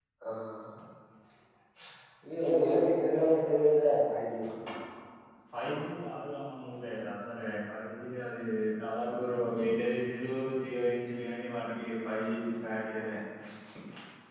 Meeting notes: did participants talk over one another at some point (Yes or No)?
Yes